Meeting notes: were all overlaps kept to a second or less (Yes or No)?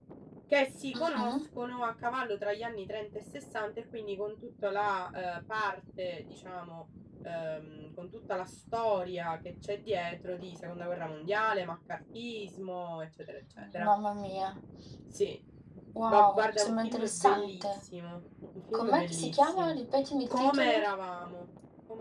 No